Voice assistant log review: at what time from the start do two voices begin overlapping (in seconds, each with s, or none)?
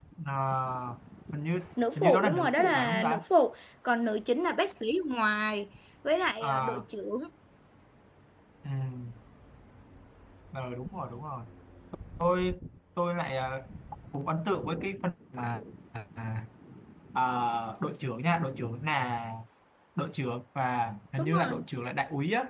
1.9 s